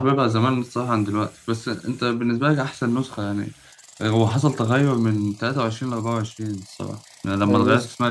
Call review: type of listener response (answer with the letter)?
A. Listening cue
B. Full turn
B